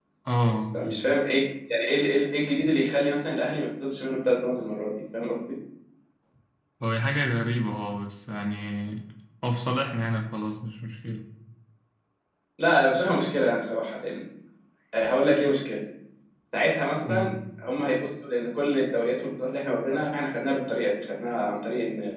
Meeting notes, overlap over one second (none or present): none